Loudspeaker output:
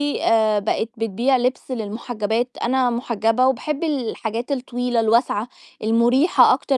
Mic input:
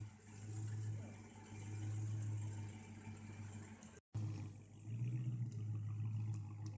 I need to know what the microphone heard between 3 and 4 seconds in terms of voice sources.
neither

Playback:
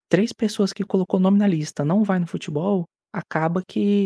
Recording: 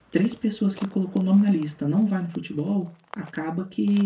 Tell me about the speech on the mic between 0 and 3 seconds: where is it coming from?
echo only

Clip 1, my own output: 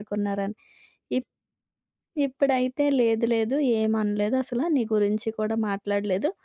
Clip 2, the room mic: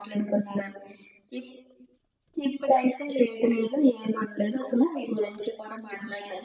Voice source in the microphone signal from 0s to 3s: echo only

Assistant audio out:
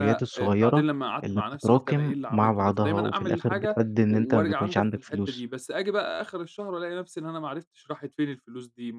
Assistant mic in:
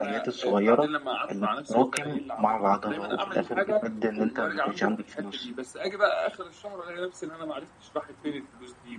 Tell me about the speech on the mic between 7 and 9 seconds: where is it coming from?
echo only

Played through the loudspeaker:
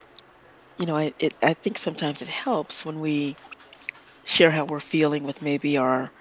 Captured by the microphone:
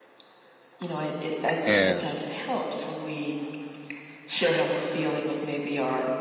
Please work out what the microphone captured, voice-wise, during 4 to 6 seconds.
echo only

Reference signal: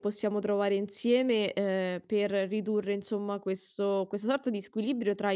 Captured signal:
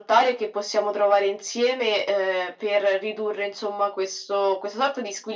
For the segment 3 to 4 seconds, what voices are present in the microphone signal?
echo only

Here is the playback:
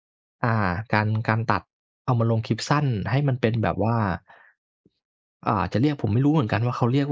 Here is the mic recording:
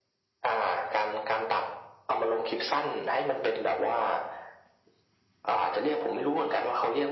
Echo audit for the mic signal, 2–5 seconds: echo only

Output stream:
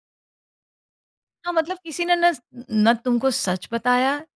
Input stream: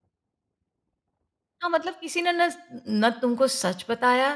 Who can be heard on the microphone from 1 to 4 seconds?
echo only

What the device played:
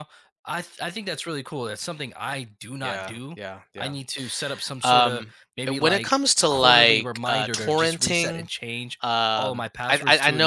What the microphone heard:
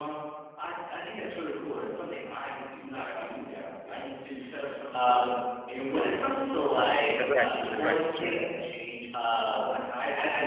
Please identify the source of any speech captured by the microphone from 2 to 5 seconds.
echo only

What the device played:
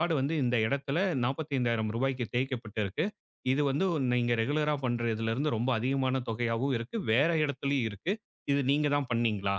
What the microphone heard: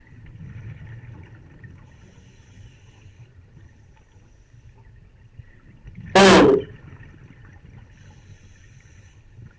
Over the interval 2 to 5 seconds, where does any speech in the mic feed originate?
neither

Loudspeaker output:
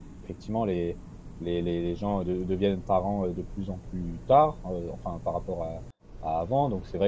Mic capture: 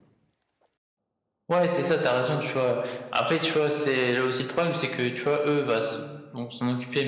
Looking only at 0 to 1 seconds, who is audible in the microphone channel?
neither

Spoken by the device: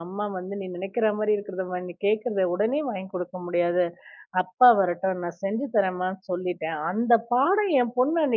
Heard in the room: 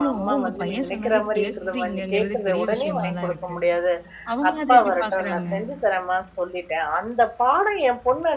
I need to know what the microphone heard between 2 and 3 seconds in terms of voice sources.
both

